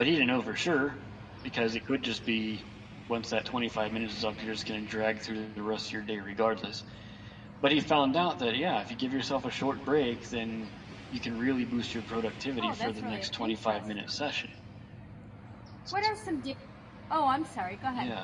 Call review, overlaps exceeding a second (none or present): present